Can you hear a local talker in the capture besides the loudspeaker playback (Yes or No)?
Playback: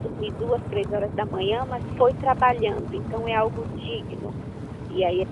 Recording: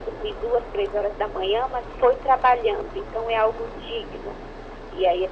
No